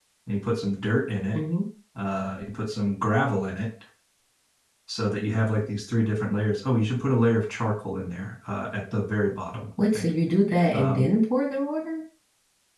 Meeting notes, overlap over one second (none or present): none